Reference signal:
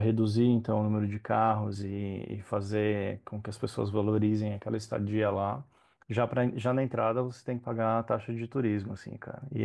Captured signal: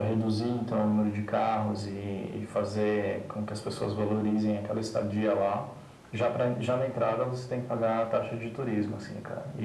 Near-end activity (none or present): none